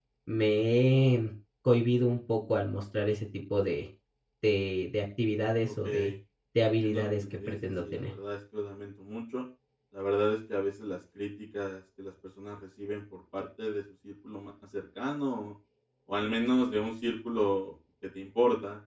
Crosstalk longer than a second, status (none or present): present